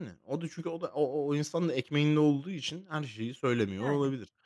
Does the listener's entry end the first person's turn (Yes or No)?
No